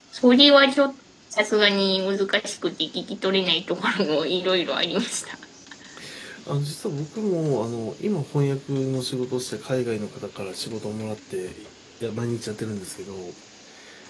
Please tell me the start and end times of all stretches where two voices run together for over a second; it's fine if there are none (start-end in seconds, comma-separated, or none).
none